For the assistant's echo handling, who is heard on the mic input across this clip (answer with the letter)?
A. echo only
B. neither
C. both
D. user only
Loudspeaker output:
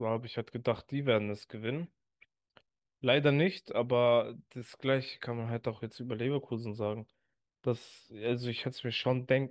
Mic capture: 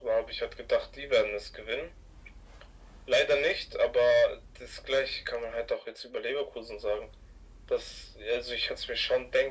A